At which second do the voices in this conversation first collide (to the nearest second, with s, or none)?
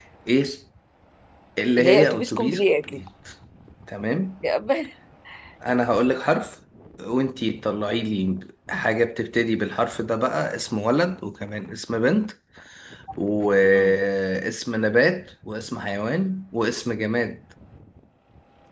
2 s